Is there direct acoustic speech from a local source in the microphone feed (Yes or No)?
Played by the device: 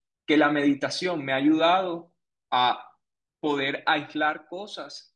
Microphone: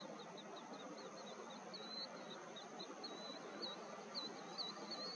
No